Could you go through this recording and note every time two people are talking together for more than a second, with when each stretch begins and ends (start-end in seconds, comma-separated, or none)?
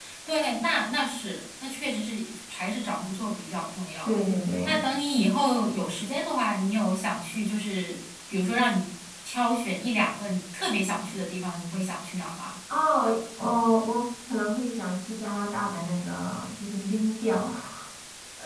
none